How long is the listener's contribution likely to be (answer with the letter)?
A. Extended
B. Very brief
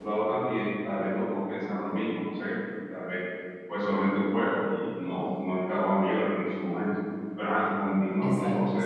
A